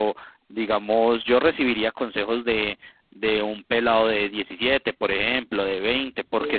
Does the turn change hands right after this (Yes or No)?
No